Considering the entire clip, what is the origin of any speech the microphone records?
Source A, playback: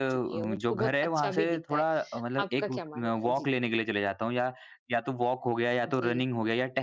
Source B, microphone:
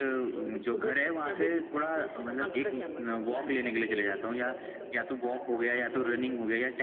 both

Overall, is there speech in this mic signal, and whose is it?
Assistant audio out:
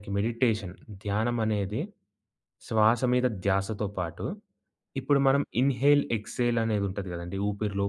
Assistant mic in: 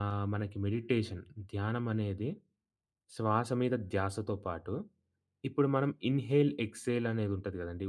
echo only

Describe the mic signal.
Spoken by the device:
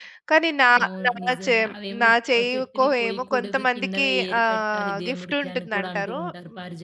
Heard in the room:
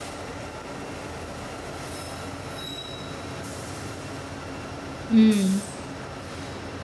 user only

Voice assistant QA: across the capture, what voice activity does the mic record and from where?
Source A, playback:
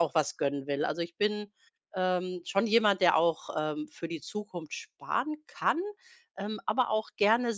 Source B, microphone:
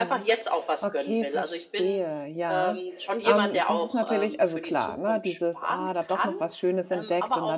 both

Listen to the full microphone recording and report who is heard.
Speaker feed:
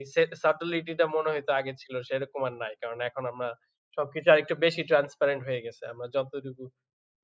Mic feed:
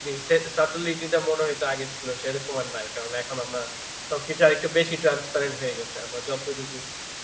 echo only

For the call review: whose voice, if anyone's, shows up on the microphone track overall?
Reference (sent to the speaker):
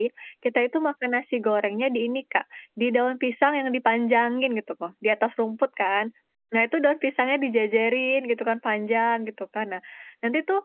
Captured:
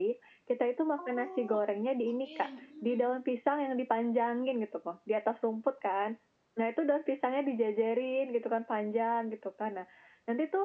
both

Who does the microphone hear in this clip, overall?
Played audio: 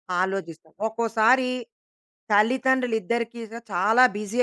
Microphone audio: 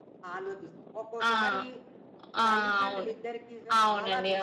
both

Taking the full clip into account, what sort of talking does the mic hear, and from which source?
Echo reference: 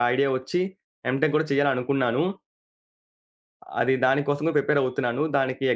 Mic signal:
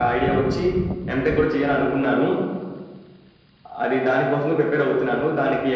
echo only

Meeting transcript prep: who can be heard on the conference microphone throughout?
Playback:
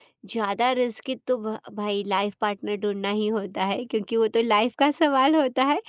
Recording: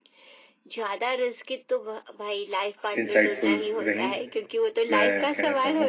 both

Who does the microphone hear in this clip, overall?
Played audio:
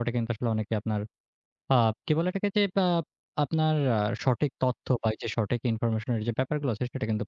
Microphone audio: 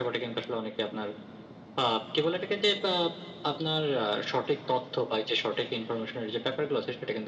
echo only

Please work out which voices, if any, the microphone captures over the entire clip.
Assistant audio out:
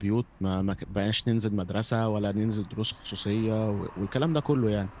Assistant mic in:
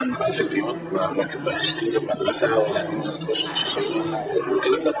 both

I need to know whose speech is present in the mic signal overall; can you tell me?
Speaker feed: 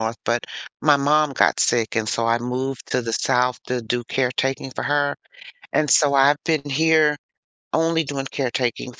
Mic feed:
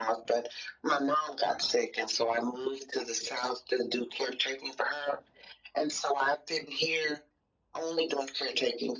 echo only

